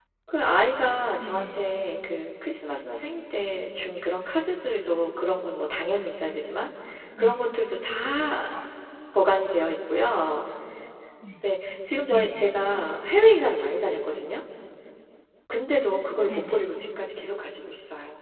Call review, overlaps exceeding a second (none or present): none